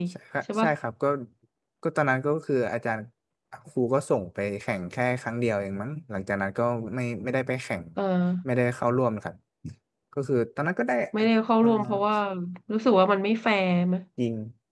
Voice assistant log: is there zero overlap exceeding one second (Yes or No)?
Yes